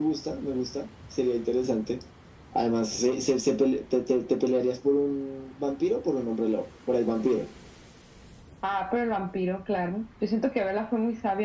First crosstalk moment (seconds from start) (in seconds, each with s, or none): none